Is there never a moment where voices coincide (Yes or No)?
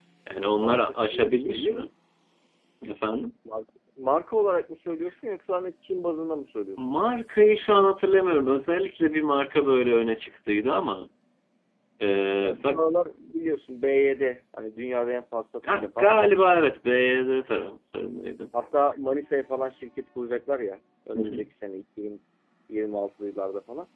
No